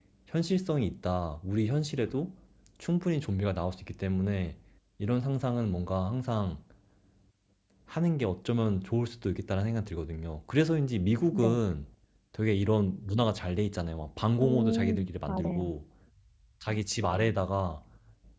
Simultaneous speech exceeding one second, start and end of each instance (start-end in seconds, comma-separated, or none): 14.4-15.7